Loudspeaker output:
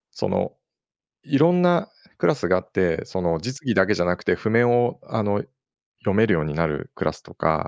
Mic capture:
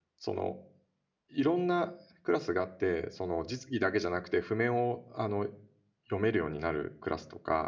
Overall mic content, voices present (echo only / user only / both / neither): echo only